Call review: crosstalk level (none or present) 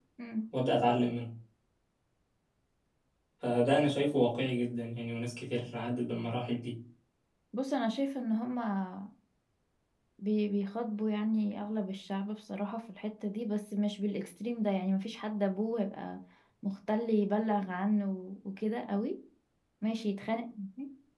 none